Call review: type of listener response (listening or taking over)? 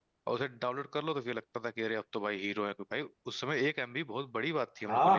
taking over